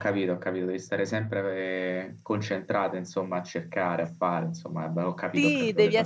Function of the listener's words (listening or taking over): taking over